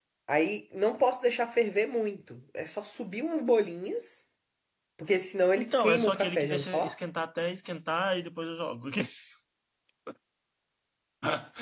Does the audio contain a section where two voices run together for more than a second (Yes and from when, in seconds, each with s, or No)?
Yes, from 5.6 s